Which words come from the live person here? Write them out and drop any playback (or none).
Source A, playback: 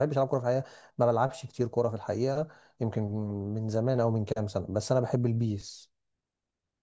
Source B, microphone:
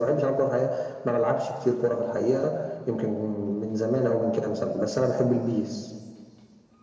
none